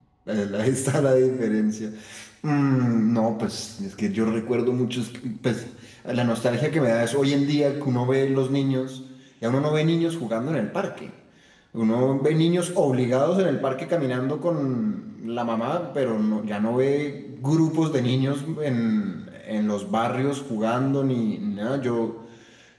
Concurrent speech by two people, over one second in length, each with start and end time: none

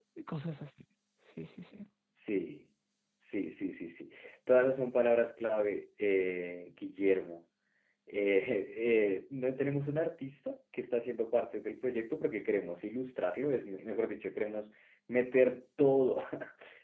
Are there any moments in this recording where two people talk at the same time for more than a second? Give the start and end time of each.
none

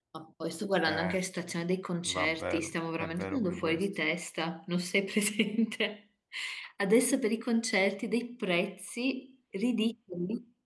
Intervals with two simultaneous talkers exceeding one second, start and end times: 2.0-3.9

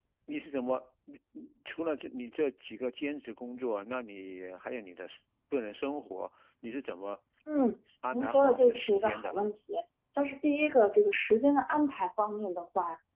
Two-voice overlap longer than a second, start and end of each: 8.1-9.5

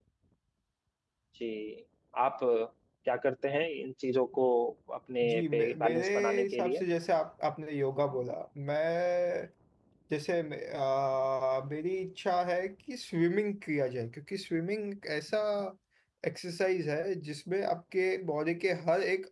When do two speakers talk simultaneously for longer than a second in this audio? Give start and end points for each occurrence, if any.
5.2-6.8

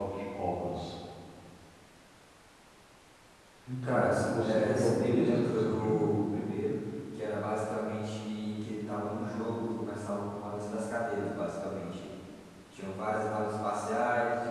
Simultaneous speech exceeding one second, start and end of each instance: 3.8-6.0

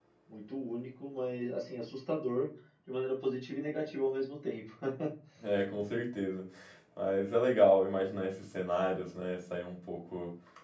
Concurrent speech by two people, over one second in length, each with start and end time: none

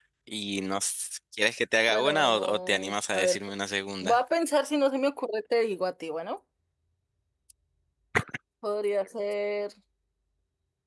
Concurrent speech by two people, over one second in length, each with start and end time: 1.9-3.4

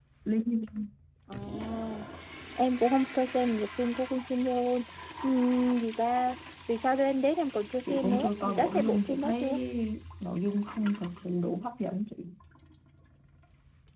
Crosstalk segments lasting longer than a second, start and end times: 7.9-9.5

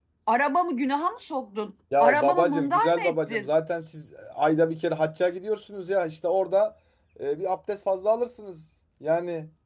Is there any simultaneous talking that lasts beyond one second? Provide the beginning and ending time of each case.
2.0-3.5

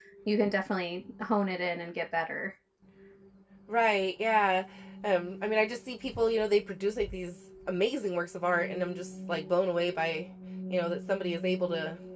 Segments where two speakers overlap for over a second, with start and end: none

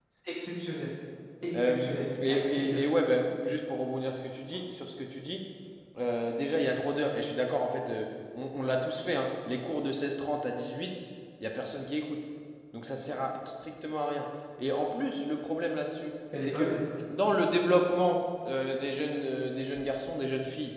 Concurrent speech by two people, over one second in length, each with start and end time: 1.5-2.8

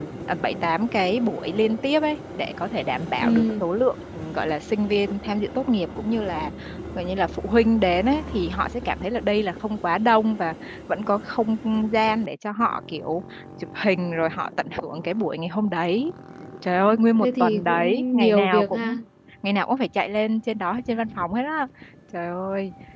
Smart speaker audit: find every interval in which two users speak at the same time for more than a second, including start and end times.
17.2-19.0

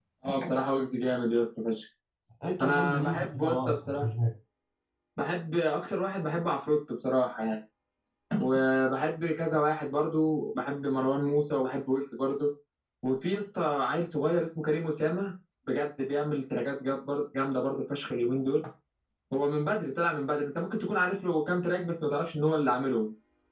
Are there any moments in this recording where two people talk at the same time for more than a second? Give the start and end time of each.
2.6-4.0

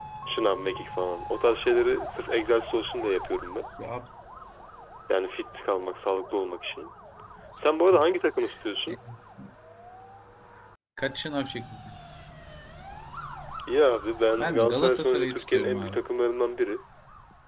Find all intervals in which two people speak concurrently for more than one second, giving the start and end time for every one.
14.4-16.0

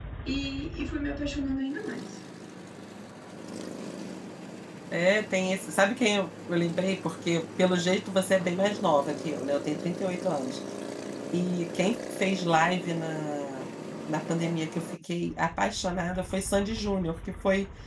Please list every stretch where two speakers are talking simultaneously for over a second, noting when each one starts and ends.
none

